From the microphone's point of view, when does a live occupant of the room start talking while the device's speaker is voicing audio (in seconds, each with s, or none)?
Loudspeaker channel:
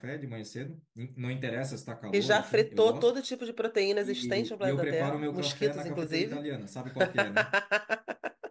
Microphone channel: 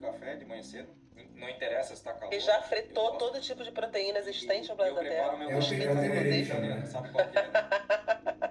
5.5 s